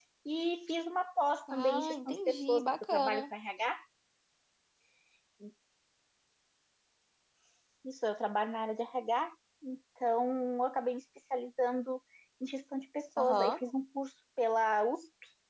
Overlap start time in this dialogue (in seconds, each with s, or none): 1.5 s